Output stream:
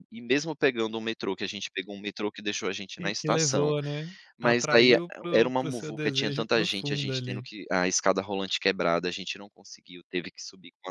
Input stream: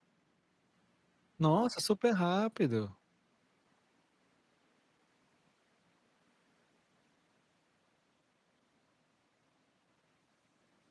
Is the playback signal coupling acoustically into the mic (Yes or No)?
No